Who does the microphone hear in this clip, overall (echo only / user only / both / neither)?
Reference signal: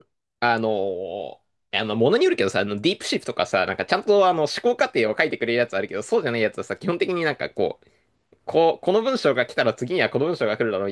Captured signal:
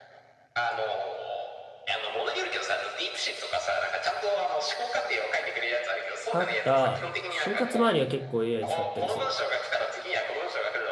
both